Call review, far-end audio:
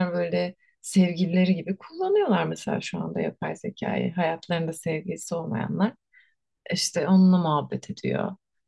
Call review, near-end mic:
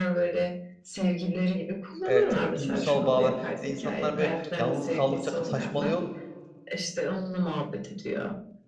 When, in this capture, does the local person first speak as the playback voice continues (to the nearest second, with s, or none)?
2 s